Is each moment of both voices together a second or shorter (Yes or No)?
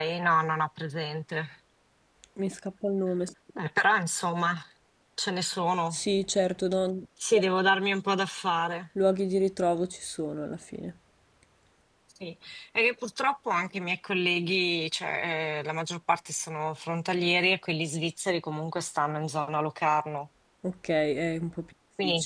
Yes